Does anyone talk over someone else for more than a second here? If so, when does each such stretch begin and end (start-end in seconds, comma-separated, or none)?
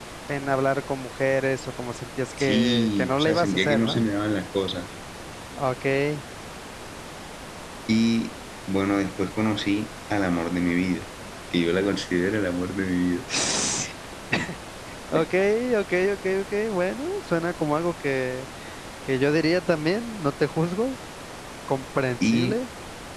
2.4-4.1